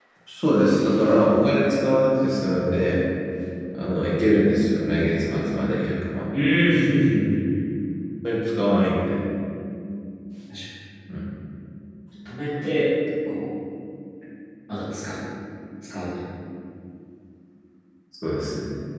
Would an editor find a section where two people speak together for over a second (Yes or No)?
No